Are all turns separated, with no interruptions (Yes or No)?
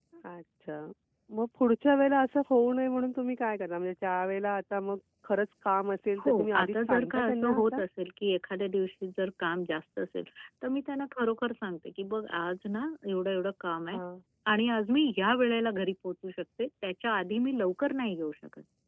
No